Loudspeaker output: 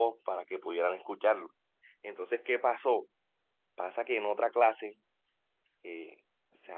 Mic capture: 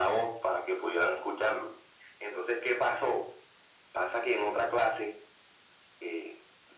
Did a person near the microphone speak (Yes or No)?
No